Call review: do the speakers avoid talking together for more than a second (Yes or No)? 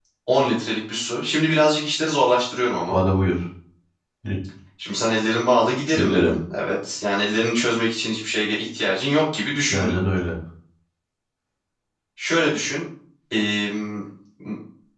Yes